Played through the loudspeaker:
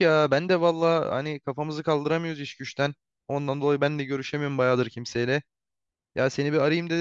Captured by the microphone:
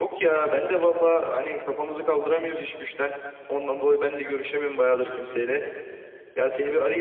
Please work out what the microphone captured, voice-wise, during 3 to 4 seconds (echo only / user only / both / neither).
echo only